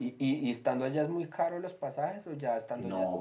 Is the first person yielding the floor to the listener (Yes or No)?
Yes